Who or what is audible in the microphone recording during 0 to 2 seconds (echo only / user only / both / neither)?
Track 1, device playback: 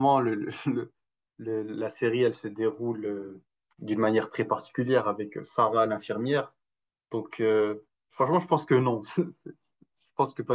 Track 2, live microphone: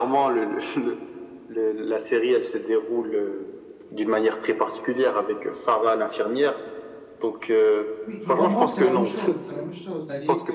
echo only